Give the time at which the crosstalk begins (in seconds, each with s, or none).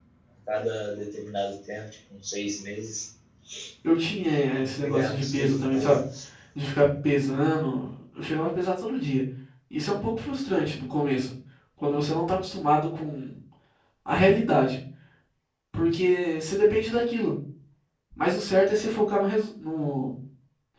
4.6 s